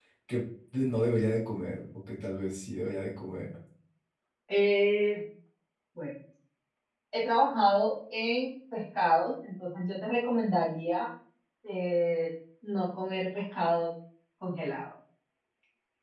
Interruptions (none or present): none